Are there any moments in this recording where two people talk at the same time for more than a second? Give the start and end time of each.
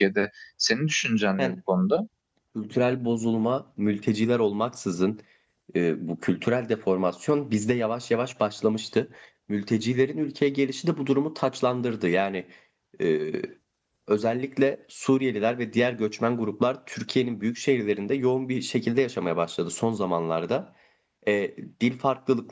none

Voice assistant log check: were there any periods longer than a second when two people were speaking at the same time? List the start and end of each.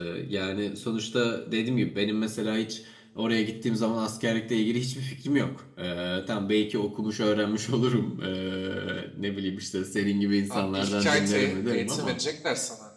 10.5-12.2

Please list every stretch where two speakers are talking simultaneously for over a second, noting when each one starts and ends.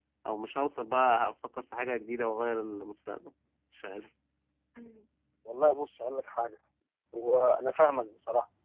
none

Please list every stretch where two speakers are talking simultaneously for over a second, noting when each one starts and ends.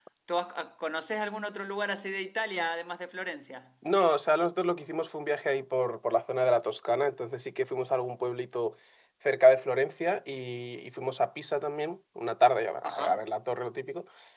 none

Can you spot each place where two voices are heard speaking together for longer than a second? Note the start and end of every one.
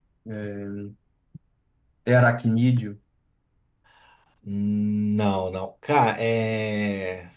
none

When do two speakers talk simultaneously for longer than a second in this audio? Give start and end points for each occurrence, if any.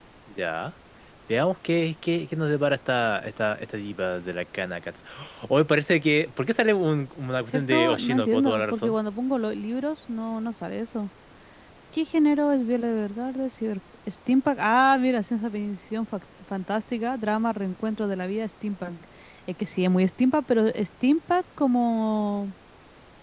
7.5-9.0

